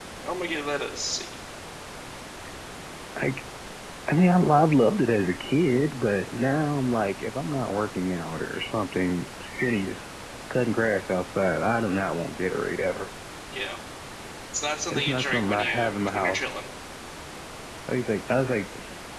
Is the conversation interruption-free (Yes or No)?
No